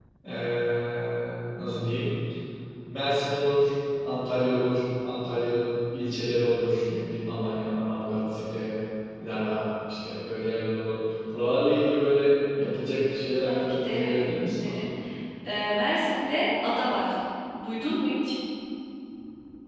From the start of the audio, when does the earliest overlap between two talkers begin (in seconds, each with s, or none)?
13.4 s